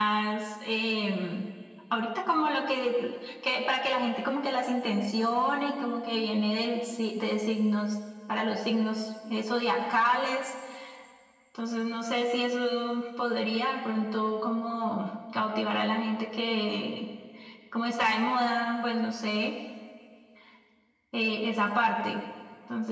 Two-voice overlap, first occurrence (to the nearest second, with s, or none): none